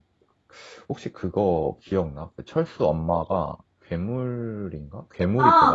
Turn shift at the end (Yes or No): Yes